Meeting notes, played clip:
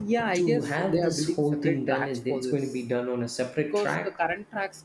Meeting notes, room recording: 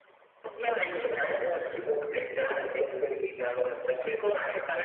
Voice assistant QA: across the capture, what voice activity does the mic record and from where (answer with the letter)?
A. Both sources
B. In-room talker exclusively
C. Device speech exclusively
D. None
C